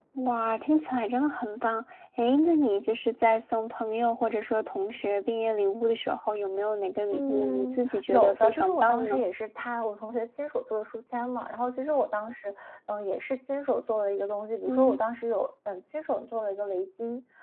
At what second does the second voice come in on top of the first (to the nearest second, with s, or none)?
7 s